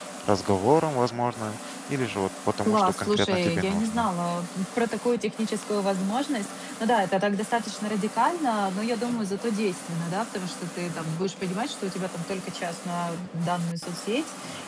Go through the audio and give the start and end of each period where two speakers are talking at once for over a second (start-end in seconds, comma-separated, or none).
2.6-4.1